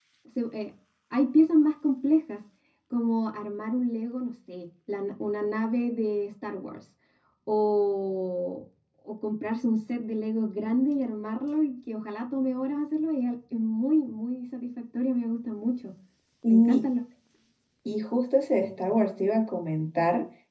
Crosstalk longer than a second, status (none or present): none